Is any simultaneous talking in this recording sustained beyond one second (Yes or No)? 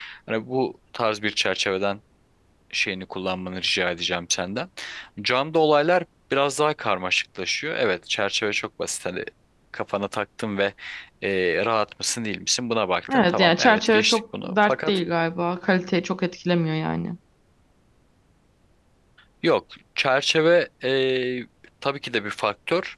Yes